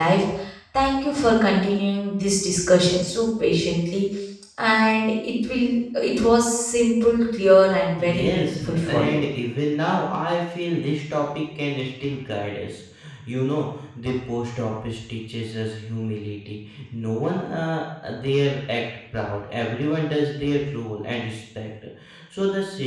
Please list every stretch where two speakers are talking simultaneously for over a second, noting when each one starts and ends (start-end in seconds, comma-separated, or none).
8.0-9.2